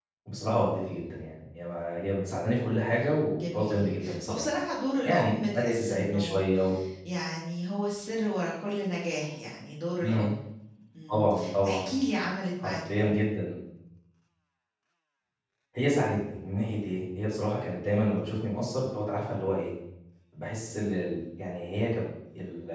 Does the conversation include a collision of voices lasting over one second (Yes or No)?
Yes